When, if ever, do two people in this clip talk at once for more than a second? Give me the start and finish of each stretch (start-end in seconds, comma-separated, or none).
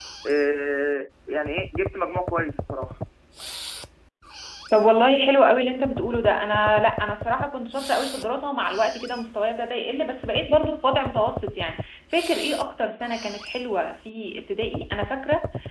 none